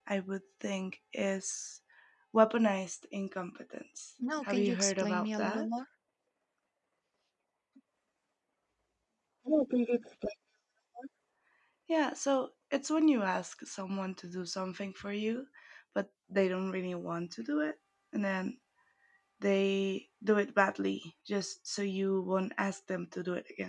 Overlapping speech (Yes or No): Yes